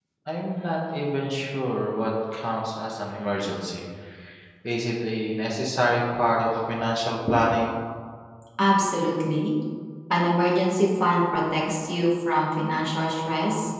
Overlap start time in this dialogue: none

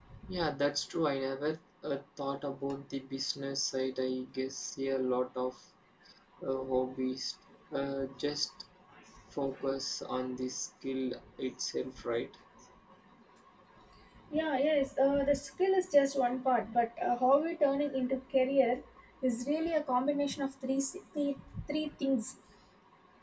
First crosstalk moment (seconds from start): none

